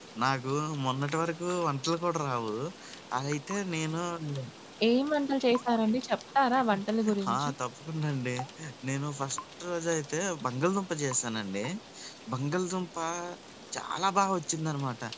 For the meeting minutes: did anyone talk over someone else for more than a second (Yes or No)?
No